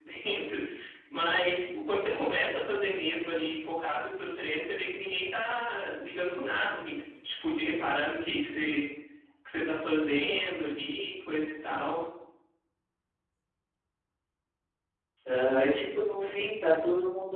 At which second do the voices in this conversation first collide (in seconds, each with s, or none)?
none